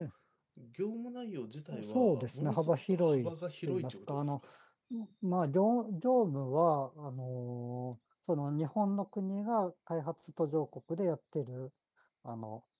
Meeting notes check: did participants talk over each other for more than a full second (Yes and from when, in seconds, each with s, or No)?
Yes, from 1.7 s